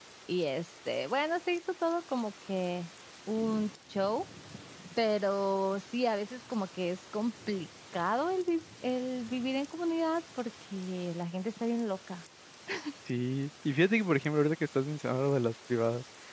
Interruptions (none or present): none